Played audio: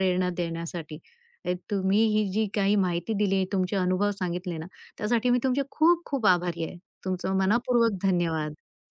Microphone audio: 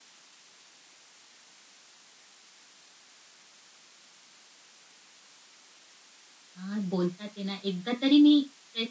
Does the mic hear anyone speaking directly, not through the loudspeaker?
Yes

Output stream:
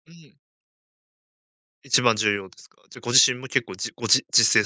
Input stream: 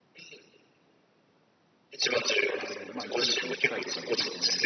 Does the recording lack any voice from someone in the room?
No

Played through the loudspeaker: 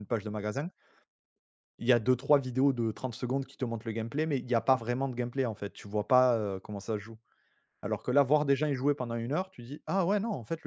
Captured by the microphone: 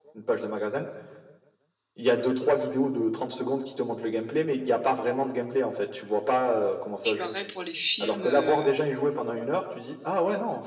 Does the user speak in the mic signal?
Yes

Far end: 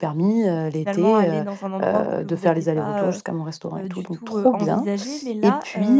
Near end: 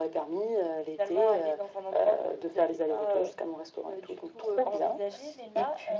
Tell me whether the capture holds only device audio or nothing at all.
Yes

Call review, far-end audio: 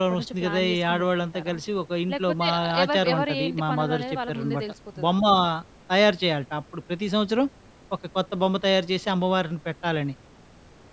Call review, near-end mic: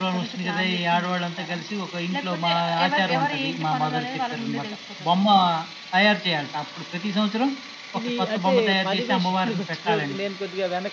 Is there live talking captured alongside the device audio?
Yes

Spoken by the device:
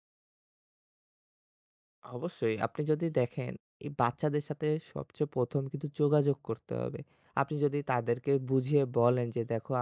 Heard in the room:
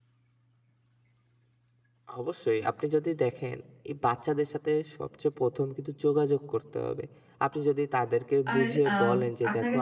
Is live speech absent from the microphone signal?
No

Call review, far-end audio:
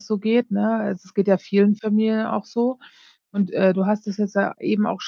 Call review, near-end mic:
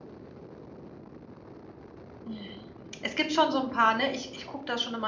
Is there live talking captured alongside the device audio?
Yes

